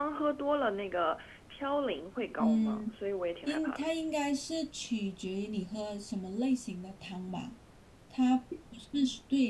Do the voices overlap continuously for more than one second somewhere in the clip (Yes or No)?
No